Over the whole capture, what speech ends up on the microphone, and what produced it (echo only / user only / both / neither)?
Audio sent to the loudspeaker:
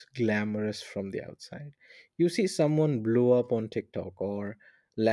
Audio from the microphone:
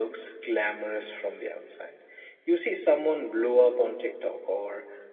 echo only